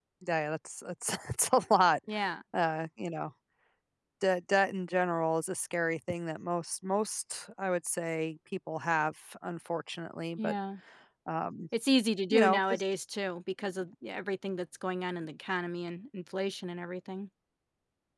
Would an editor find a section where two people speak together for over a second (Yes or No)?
No